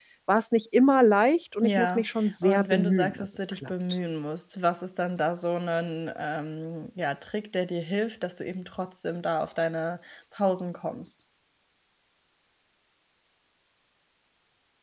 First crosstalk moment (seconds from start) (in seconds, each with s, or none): 1.6 s